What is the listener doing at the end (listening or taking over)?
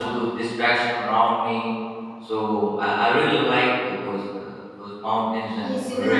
taking over